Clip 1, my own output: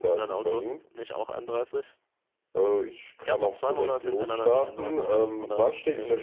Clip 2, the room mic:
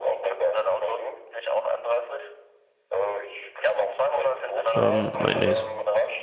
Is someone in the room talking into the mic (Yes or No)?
Yes